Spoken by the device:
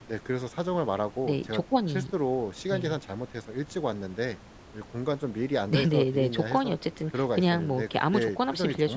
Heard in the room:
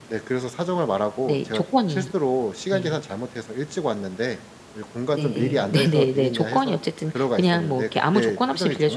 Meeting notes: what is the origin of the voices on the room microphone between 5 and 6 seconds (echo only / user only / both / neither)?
both